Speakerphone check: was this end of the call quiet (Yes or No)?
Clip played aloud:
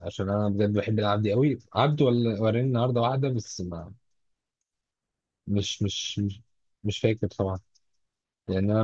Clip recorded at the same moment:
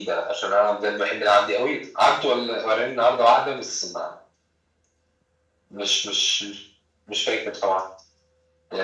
Yes